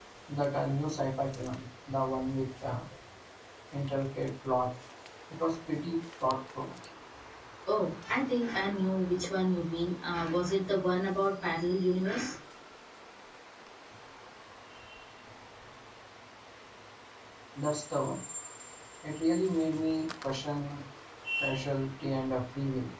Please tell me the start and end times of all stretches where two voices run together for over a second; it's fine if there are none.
none

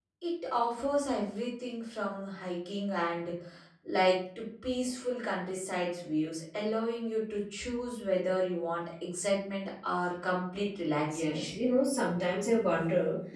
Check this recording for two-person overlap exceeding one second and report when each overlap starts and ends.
none

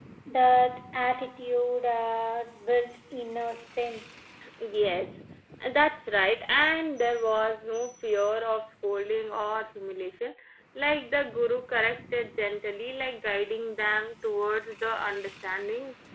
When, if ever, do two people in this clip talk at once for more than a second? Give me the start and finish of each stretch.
none

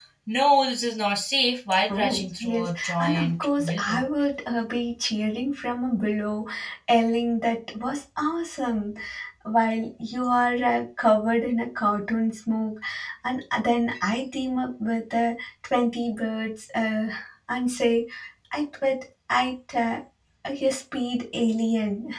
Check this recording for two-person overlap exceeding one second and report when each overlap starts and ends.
1.9-4.0

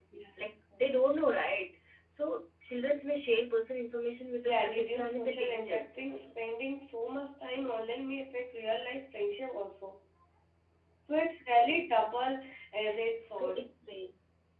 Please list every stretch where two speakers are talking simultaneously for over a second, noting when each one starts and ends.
4.4-6.0

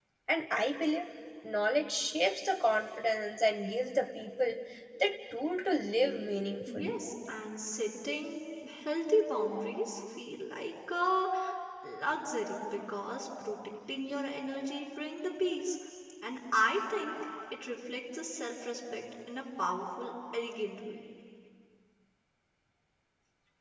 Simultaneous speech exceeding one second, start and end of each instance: none

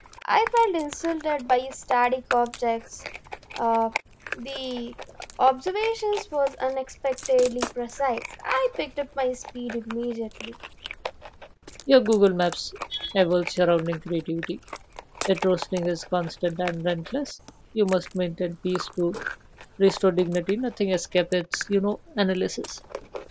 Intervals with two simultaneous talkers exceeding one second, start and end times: none

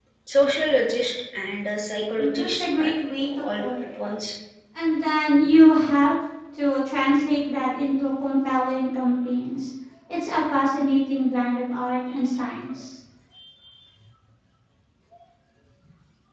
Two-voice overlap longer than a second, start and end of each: 2.2-3.7

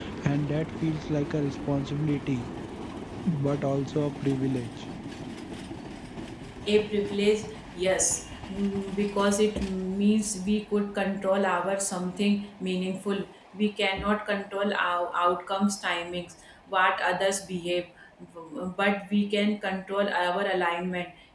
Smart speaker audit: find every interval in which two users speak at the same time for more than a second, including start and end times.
none

